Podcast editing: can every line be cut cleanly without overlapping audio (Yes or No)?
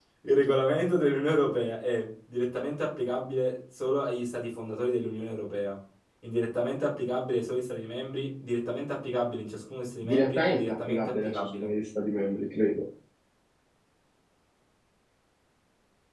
No